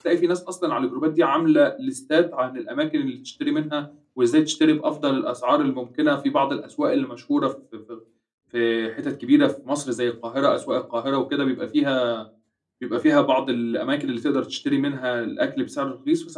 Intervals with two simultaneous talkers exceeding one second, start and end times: none

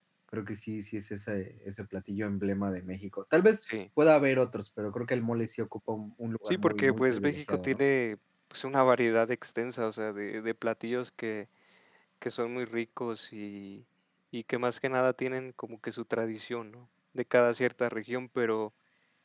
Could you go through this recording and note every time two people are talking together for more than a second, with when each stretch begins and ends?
6.5-7.8

